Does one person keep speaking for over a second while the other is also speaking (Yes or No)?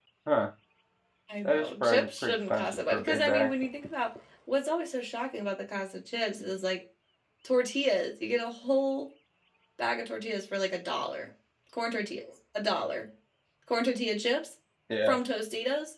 Yes